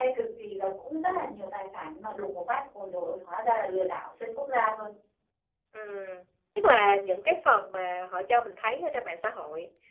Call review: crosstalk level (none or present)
none